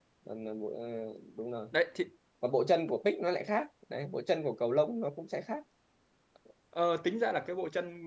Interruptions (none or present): none